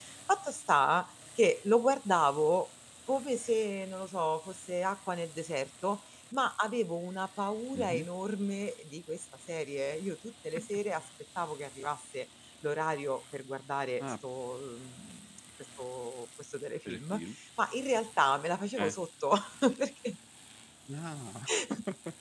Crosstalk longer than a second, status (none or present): none